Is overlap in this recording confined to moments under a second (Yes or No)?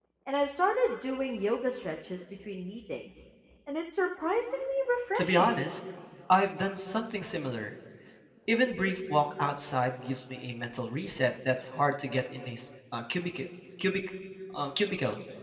Yes